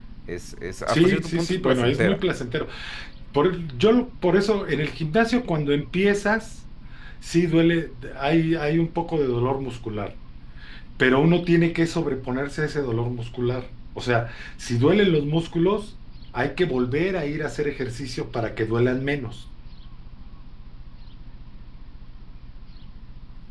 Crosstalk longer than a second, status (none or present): present